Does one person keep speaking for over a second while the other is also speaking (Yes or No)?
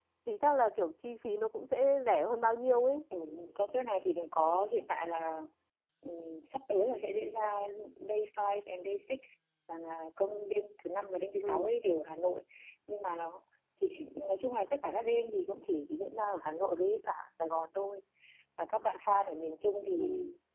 No